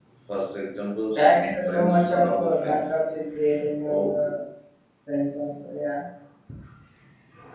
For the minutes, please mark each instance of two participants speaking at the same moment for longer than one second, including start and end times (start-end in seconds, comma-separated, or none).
1.1-2.9